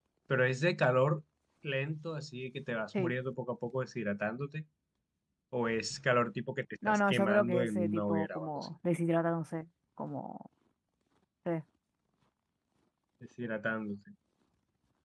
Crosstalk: present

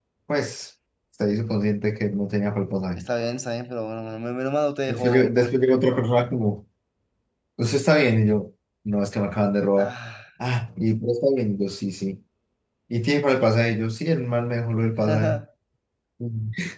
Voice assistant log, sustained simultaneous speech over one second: none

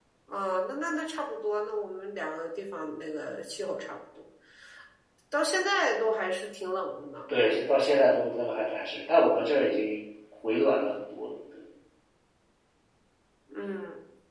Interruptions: none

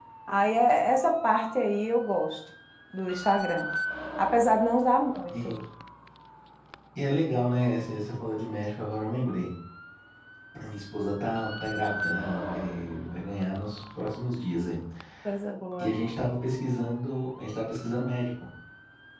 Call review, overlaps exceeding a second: none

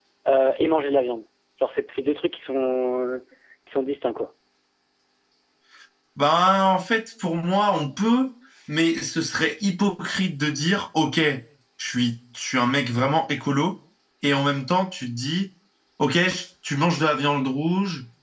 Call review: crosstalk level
none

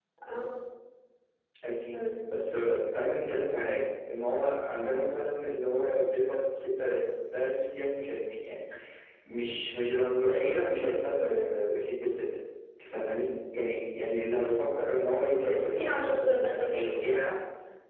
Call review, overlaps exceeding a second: present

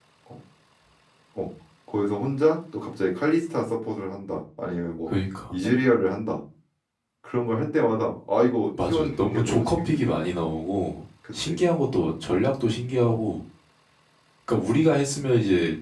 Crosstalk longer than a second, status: present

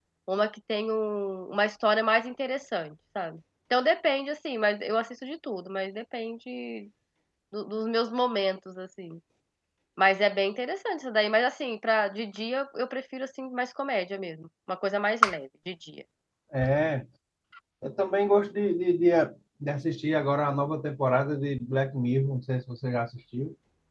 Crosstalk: none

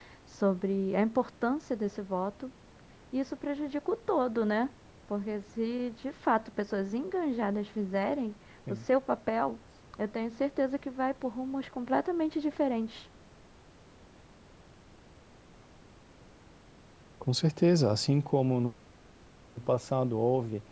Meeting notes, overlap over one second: none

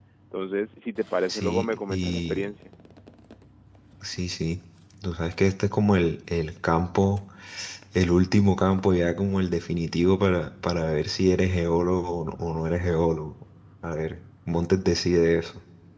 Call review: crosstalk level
present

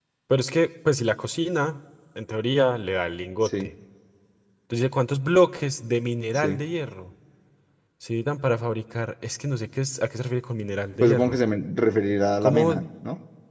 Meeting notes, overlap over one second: none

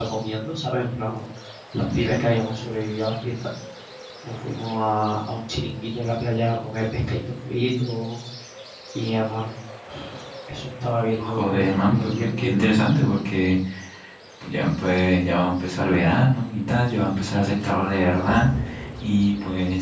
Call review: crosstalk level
present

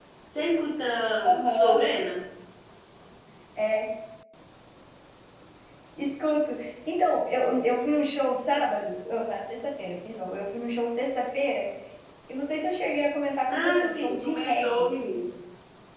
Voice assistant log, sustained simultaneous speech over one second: present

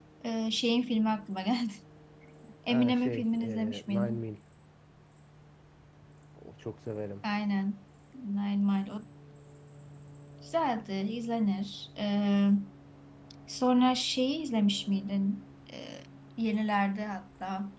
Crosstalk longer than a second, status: present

